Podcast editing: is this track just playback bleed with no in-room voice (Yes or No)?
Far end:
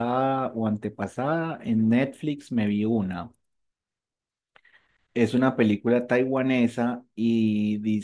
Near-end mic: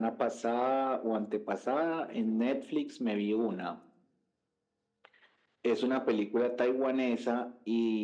Yes